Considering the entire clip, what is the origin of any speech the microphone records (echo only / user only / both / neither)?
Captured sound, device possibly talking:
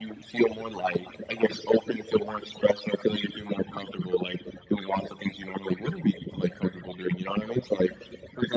echo only